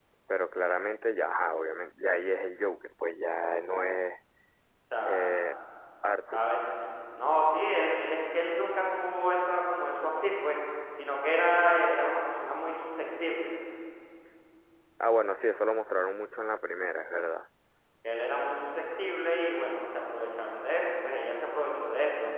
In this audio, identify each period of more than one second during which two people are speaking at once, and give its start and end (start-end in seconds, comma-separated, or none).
none